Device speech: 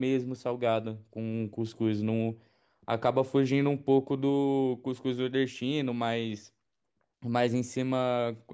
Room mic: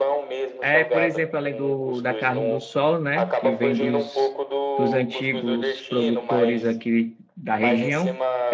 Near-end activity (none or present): present